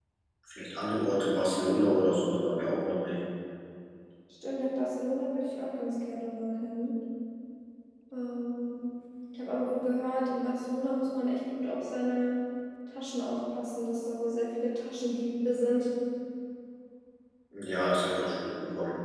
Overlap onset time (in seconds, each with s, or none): none